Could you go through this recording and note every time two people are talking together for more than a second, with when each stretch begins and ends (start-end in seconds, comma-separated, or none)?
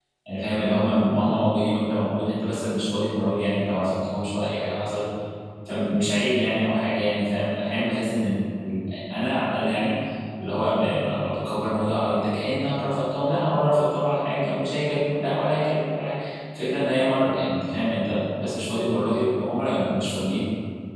none